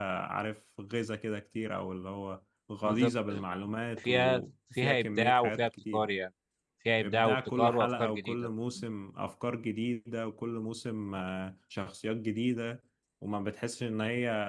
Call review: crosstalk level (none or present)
present